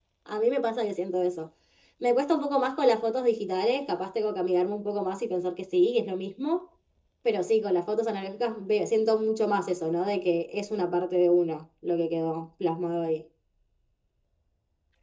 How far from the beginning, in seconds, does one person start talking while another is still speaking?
none

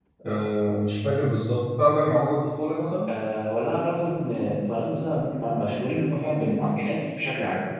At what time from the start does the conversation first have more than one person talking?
none

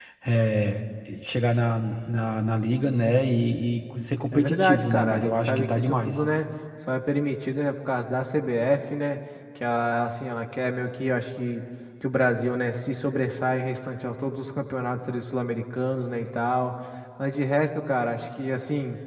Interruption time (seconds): 4.3 s

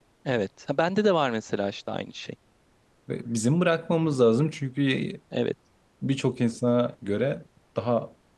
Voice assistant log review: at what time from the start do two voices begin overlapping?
none

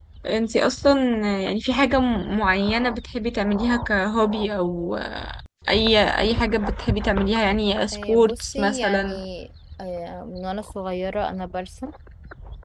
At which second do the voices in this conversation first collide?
7.9 s

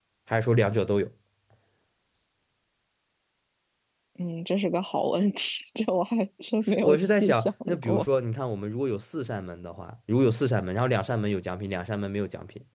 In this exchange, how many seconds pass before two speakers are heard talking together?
6.7 s

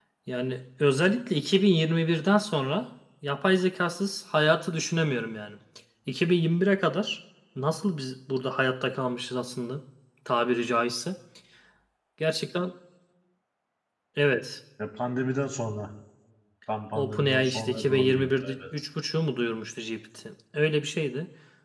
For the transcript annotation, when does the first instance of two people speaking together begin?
17.0 s

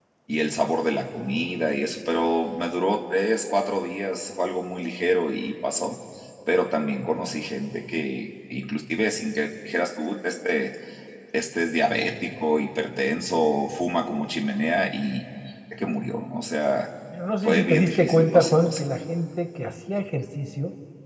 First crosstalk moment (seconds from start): 17.4 s

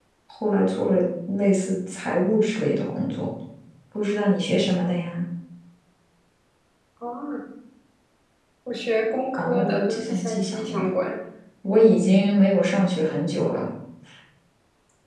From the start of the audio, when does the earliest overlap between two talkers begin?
9.3 s

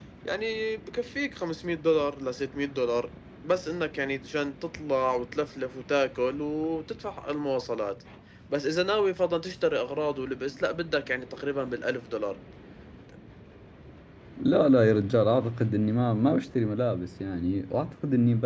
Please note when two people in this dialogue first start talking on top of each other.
none

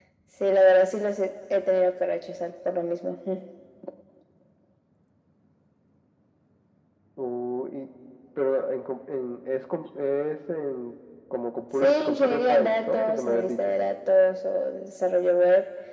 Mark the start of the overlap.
11.7 s

